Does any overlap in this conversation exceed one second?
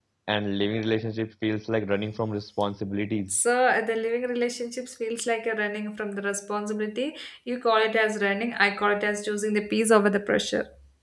No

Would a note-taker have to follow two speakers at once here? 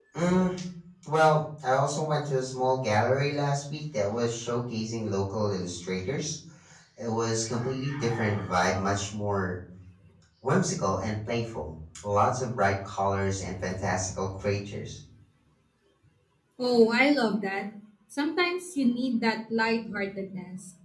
No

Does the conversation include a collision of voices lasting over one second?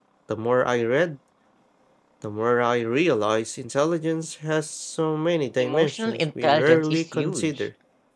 Yes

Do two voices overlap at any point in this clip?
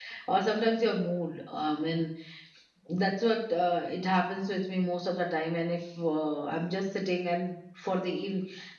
No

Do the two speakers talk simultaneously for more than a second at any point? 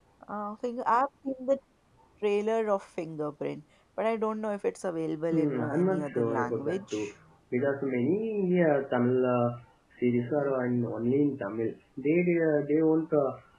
Yes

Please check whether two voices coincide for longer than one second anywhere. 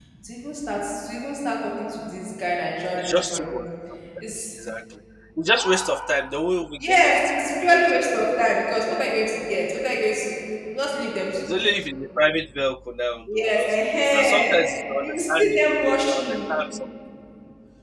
Yes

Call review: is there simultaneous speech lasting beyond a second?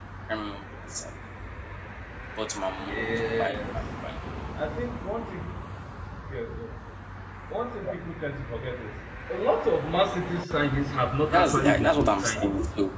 Yes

